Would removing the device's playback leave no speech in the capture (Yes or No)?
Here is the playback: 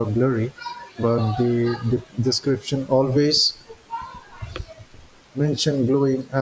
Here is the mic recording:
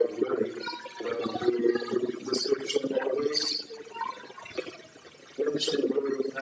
Yes